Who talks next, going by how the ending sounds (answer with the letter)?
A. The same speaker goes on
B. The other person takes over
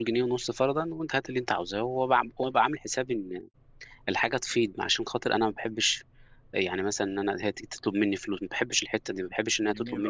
B